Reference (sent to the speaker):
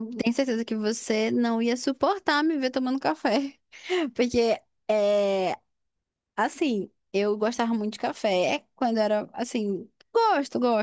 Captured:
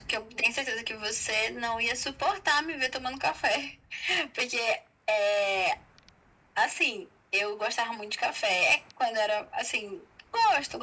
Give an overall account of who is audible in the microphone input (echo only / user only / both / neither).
echo only